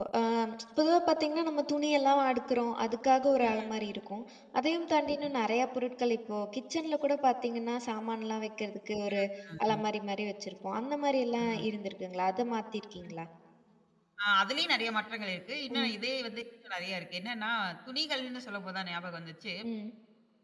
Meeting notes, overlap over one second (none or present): none